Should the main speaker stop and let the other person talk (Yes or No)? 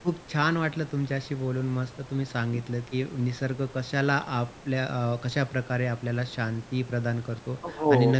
No